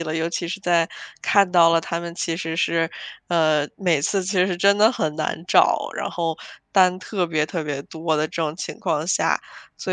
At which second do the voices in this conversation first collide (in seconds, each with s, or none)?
none